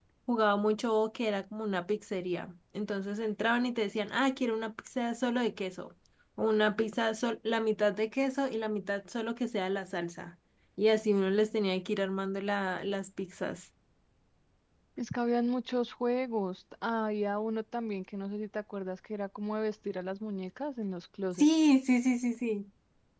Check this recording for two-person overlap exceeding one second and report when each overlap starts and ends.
none

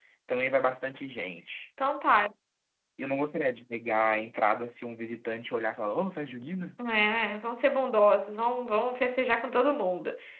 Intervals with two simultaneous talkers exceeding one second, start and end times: none

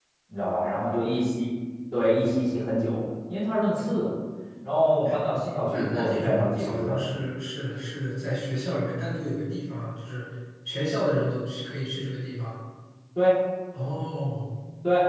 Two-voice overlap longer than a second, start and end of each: 5.7-7.0

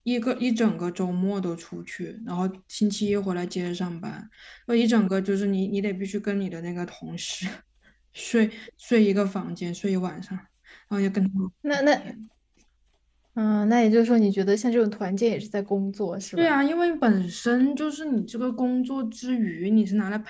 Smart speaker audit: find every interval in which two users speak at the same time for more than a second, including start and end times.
none

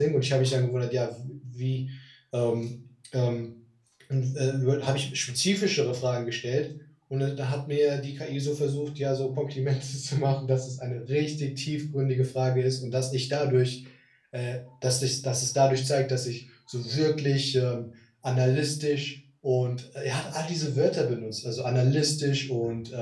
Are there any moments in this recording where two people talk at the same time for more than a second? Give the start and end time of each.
none

